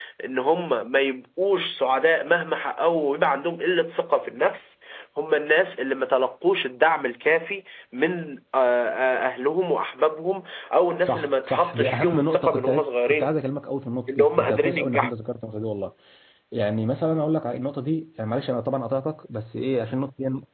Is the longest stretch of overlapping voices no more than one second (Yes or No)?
No